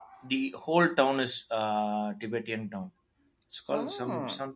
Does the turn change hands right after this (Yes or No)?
No